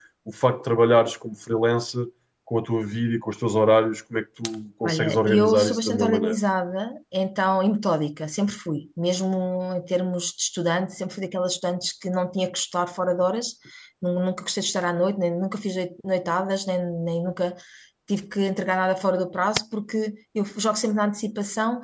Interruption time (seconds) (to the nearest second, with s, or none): 5 s